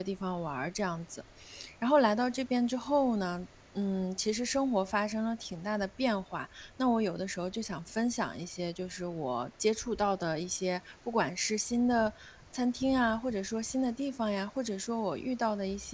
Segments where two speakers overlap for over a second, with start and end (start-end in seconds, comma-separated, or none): none